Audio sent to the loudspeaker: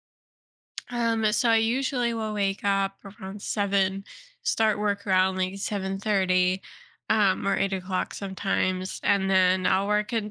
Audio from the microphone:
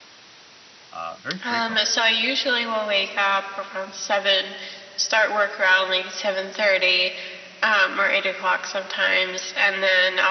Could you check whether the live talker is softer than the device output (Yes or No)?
Yes